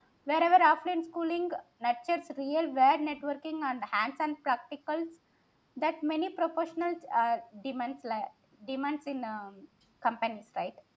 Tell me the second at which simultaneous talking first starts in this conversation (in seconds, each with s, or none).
none